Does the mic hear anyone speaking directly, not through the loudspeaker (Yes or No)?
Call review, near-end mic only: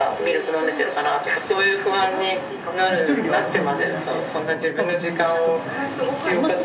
Yes